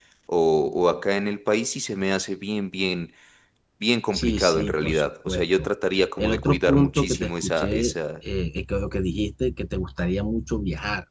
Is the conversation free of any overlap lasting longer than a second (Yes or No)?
No